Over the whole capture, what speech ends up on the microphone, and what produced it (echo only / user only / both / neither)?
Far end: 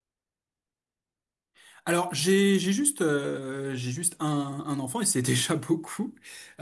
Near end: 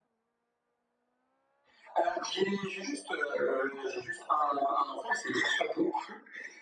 echo only